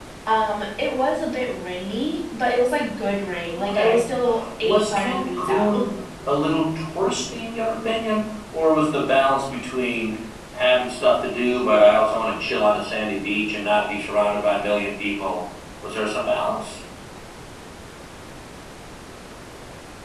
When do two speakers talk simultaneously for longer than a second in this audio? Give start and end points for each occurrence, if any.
4.6-5.8

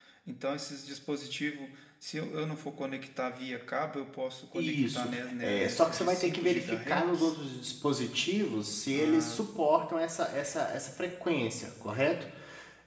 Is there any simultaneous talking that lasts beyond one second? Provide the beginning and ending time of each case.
4.6-7.3

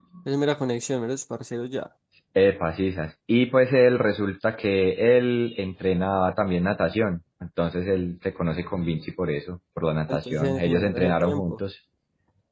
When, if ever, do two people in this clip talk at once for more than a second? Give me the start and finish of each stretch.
10.1-11.6

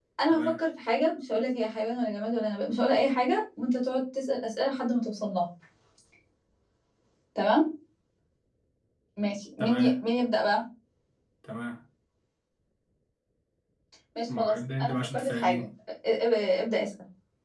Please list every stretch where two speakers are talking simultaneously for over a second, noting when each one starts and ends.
14.4-15.7

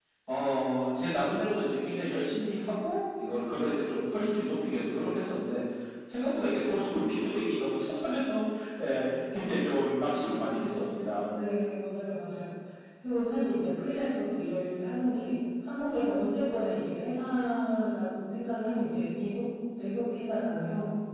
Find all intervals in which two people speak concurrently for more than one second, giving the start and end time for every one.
none

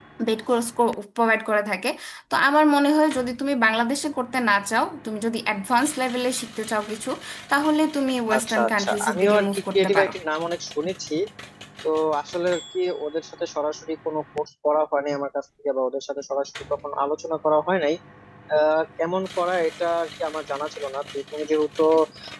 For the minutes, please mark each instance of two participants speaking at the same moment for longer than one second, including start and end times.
8.4-10.1

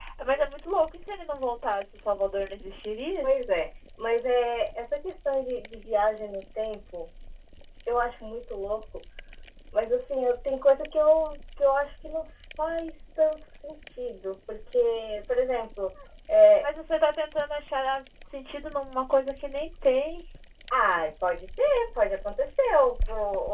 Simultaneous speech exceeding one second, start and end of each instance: none

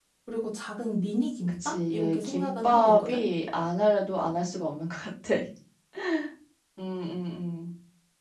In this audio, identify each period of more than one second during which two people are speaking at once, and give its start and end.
1.6-3.2

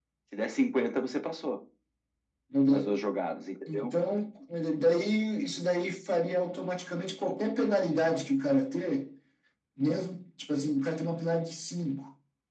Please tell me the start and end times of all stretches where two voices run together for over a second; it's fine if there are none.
none

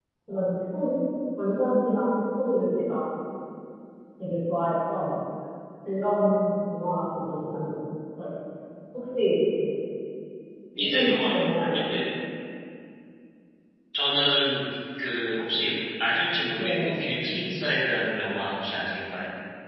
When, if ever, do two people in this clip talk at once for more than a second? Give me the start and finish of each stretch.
10.8-12.0

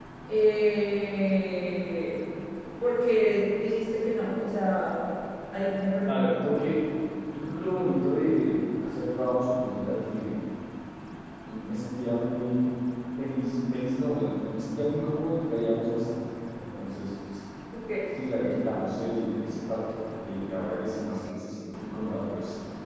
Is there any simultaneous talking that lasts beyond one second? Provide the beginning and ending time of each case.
none

